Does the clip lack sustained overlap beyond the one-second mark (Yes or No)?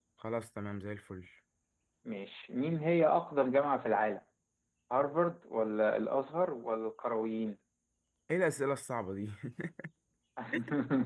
Yes